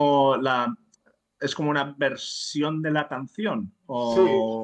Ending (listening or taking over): taking over